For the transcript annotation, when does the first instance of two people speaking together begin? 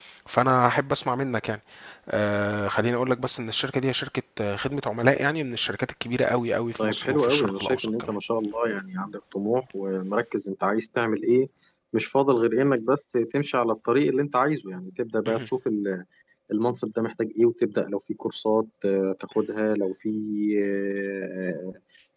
6.8 s

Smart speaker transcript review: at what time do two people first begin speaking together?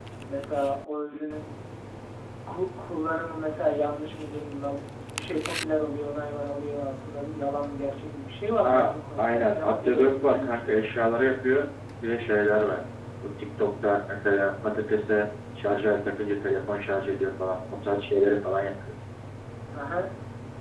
8.6 s

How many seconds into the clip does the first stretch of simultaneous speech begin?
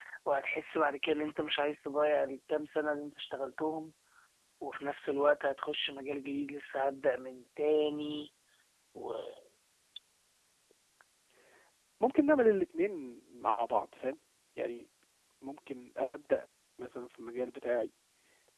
none

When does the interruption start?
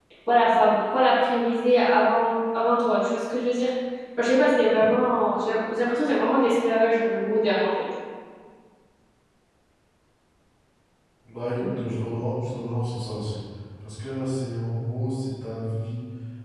none

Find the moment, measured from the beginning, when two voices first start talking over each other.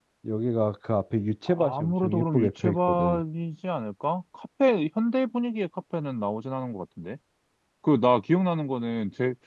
1.5 s

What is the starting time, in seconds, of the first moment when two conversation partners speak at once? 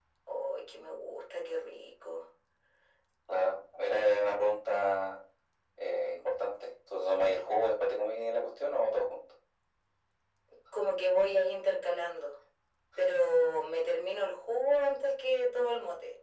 none

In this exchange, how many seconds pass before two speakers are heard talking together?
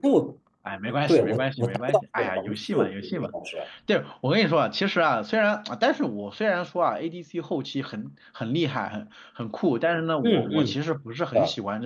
1.1 s

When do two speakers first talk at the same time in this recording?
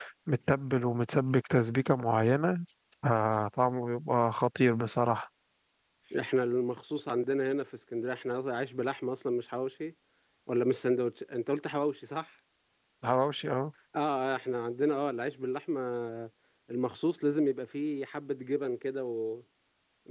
none

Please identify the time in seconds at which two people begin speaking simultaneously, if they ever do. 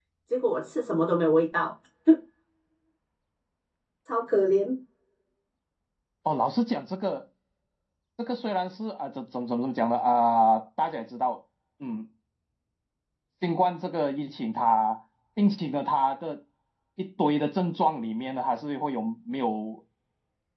none

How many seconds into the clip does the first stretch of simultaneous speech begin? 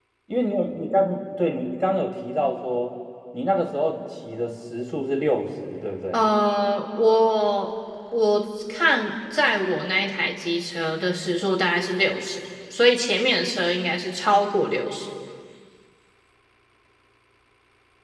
none

